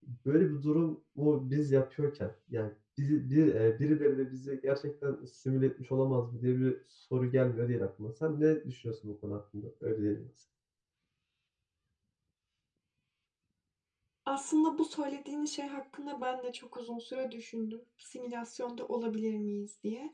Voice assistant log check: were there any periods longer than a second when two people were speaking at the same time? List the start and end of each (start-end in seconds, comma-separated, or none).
none